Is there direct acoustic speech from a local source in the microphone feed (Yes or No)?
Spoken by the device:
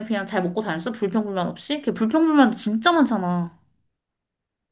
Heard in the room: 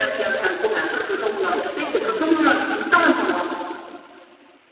Yes